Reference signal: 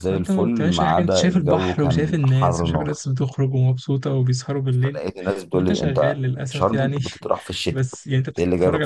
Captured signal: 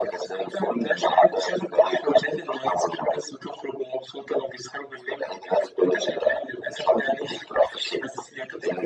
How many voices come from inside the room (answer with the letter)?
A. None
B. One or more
A